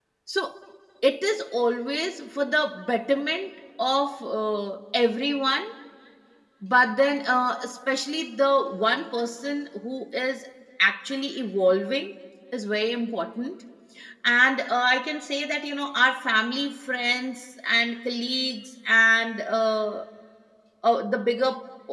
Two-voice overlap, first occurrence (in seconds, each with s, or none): none